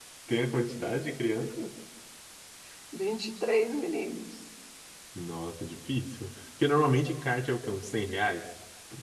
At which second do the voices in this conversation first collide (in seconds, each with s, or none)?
none